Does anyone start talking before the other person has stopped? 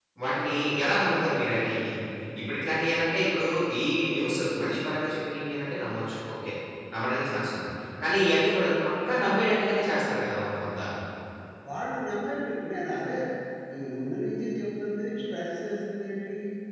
No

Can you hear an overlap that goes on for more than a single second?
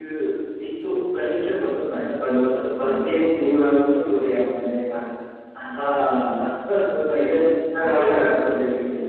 Yes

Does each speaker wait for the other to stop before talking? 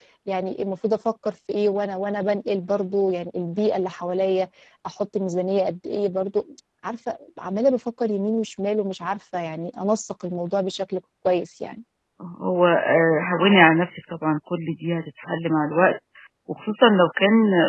Yes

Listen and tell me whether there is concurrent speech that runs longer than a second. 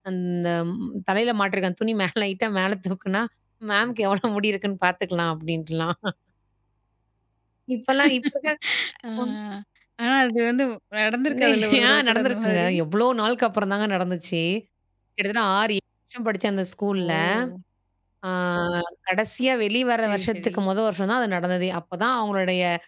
Yes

